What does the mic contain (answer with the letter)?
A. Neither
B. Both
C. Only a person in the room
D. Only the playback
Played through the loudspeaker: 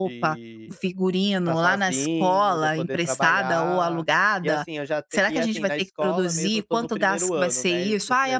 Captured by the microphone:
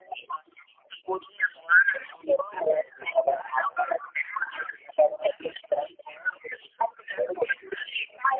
D